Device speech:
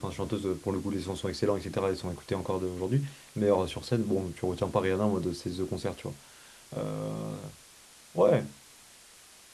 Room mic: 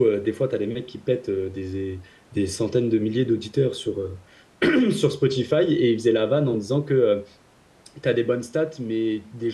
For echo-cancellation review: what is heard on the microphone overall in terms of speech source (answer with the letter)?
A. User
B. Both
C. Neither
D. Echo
A